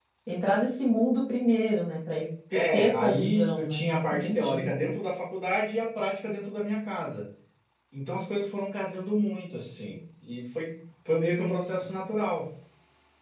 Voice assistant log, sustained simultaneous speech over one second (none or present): present